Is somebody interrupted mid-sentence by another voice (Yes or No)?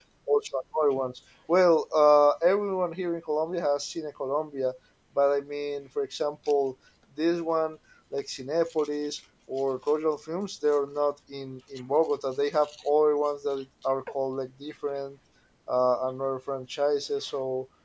No